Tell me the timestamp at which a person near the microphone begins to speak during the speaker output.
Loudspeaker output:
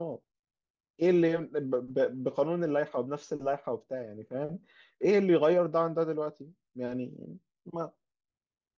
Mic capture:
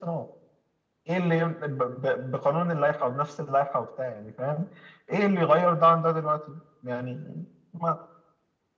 none

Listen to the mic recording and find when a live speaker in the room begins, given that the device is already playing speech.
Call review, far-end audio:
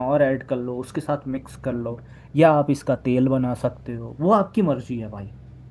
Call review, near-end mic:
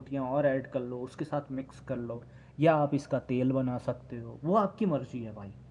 none

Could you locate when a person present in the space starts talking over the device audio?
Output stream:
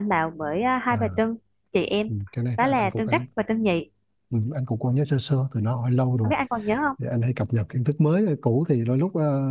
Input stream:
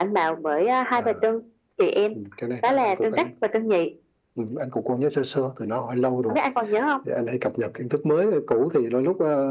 none

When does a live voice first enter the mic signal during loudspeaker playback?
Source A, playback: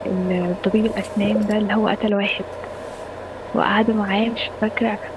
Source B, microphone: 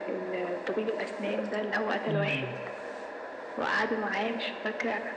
2 s

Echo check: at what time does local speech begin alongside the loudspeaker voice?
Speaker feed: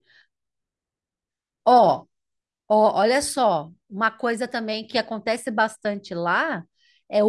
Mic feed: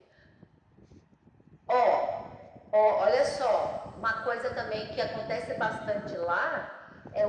none

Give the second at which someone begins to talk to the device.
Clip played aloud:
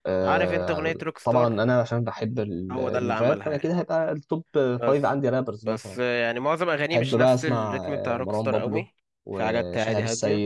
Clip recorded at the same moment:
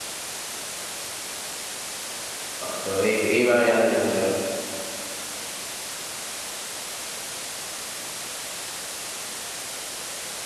3 s

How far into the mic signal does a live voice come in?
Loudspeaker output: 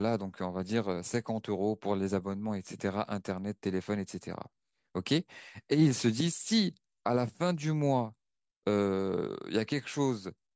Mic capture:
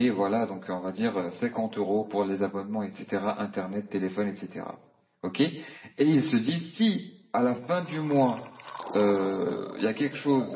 none

